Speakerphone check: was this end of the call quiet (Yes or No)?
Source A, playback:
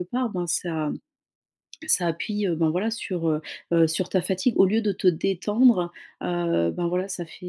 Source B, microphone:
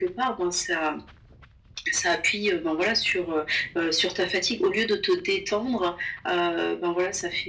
Yes